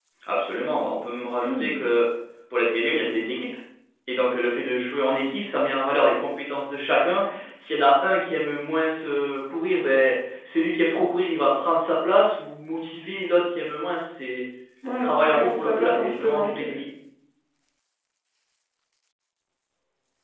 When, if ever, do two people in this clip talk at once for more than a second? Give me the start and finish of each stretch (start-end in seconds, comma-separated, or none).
15.0-16.7